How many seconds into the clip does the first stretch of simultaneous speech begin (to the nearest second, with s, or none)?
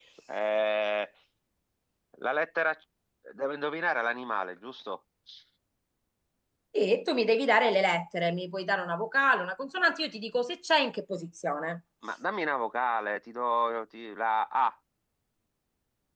none